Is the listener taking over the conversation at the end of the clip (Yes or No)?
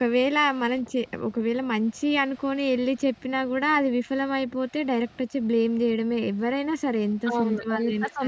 Yes